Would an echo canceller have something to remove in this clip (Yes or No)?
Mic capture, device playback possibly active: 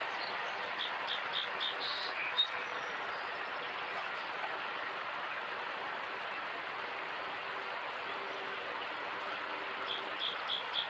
No